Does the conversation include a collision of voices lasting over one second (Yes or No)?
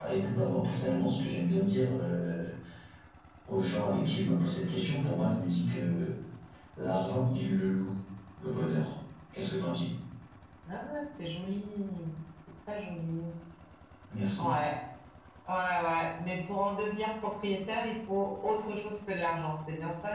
No